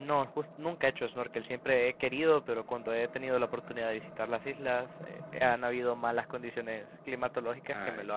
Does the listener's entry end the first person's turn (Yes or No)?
Yes